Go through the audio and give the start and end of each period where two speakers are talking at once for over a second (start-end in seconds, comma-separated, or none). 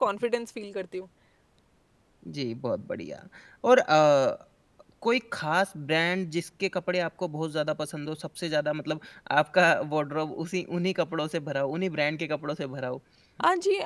none